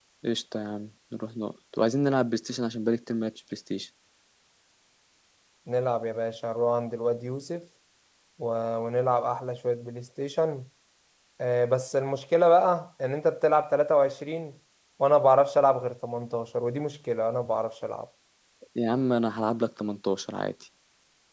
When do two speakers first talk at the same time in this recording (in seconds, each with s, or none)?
none